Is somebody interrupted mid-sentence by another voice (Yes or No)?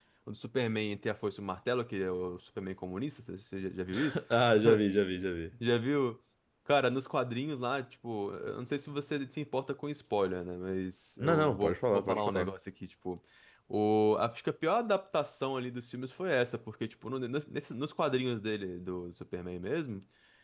Yes